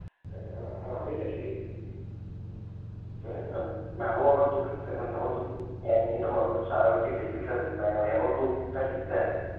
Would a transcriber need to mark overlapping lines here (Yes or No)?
No